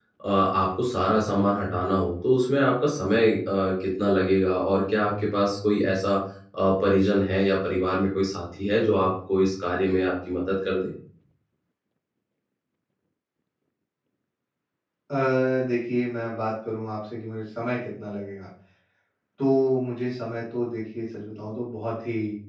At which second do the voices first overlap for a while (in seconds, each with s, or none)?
none